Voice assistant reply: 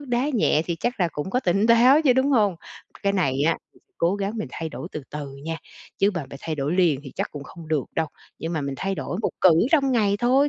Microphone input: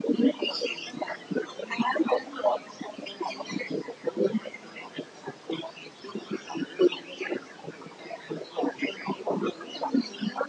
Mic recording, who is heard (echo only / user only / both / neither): echo only